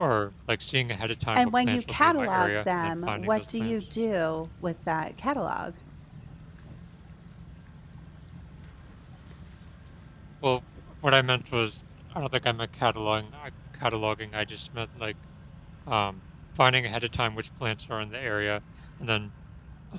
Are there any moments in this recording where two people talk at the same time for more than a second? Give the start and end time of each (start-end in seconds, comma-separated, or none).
1.4-3.8